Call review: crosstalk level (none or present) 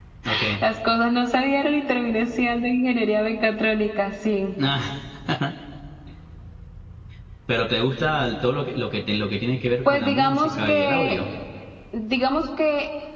present